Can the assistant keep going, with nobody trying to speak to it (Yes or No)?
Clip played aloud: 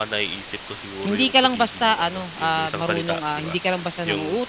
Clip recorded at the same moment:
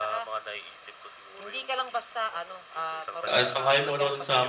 No